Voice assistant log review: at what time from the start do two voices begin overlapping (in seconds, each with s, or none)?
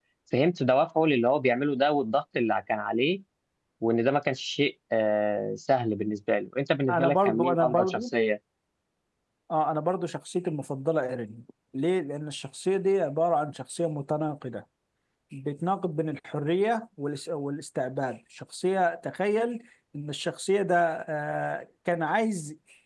6.9 s